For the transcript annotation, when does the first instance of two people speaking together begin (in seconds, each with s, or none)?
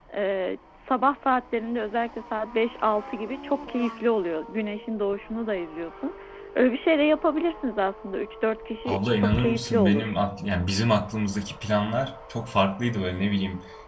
8.8 s